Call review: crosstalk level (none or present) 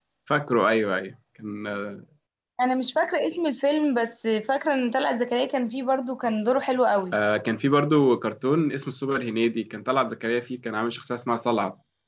none